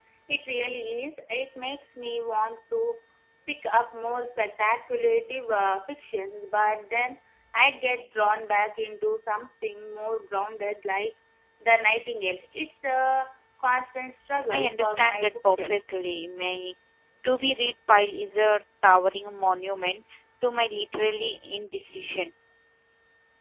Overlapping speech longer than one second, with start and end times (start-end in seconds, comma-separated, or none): 14.5-15.8